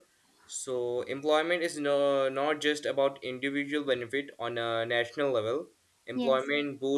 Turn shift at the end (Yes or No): No